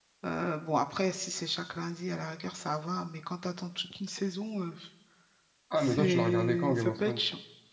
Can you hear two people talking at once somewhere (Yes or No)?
Yes